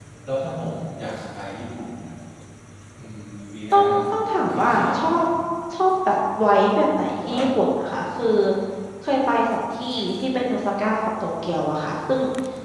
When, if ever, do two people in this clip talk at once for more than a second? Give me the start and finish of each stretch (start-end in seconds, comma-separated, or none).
3.7-5.2